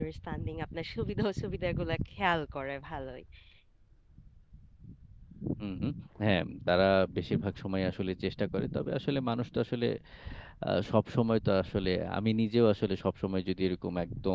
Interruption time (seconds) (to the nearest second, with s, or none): none